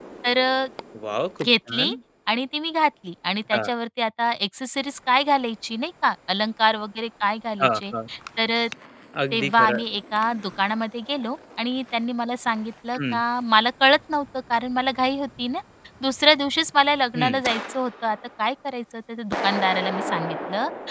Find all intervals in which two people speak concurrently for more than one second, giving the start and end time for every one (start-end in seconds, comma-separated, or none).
none